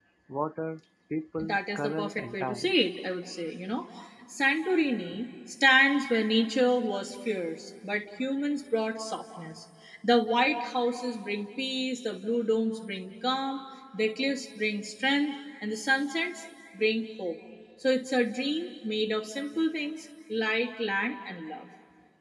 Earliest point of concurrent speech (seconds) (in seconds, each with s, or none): 1.4 s